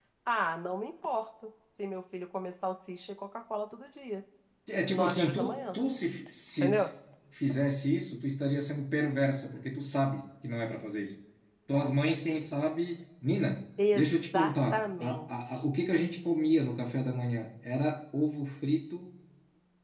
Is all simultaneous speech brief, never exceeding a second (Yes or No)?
No